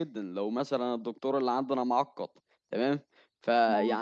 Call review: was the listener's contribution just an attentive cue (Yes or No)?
Yes